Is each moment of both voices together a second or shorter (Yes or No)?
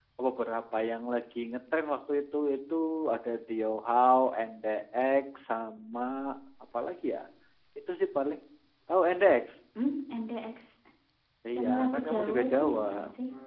No